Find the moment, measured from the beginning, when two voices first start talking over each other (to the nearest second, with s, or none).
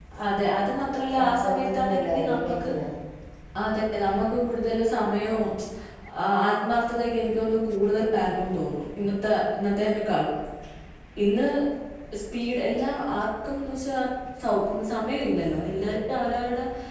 1 s